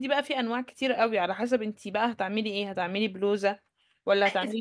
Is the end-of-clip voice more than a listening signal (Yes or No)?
Yes